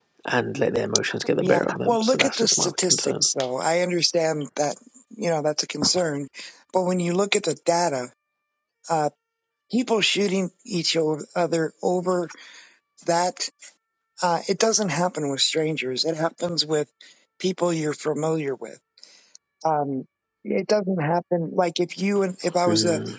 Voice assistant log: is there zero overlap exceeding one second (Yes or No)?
No